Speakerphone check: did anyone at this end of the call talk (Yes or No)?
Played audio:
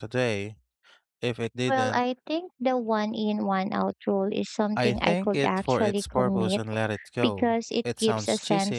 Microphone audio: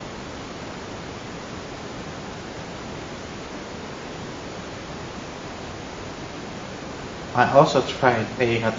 Yes